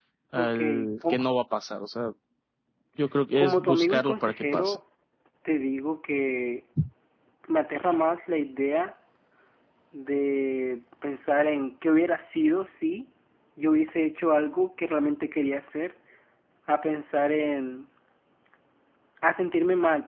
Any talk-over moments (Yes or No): Yes